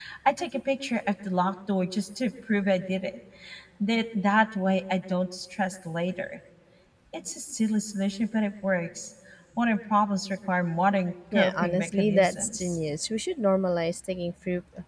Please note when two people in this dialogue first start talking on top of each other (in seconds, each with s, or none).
11.3 s